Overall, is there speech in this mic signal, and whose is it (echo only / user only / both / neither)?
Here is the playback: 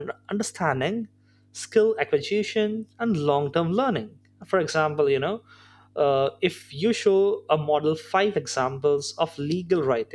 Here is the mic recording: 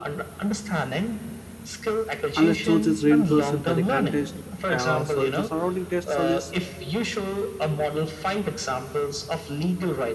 both